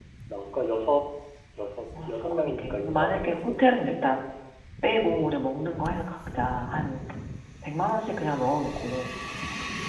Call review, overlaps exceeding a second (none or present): present